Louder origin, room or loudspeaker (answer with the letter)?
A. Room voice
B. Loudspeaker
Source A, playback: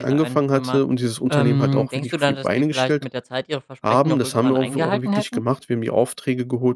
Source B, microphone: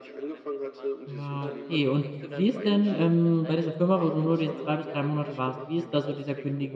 A